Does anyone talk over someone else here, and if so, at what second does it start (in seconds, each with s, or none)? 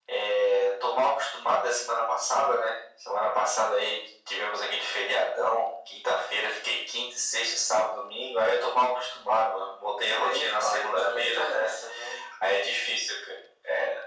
10.2 s